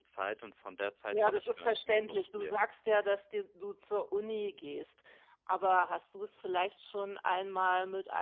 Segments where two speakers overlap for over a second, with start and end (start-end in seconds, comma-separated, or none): 1.1-2.7